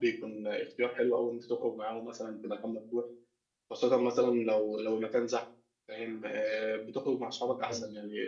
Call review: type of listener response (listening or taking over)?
listening